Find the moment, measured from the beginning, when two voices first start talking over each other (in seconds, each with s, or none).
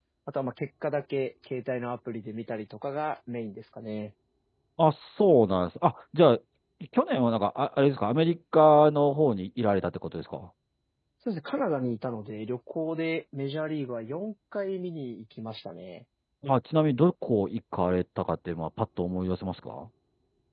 none